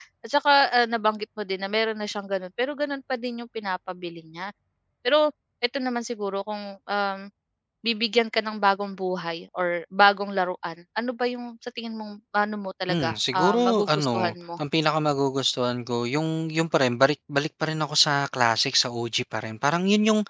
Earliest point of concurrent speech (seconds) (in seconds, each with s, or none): 12.9 s